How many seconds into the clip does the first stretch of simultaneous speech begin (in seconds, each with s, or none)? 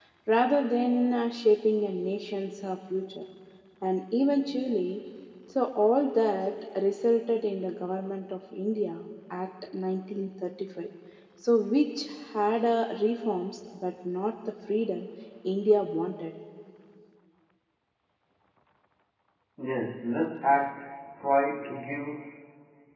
none